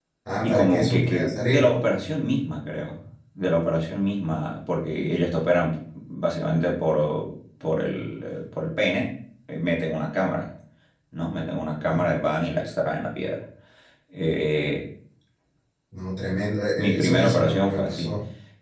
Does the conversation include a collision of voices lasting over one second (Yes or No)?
Yes